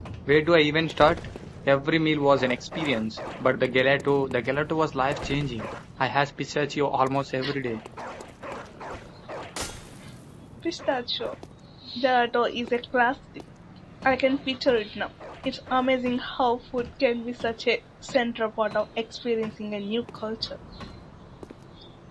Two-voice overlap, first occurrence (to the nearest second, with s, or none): none